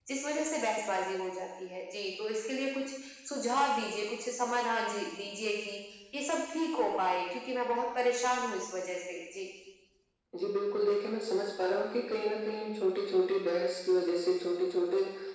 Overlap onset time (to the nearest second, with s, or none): none